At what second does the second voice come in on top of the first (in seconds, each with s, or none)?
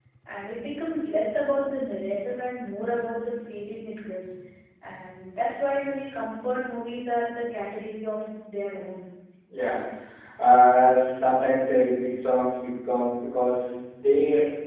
none